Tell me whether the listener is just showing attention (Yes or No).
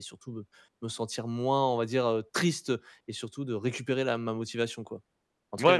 No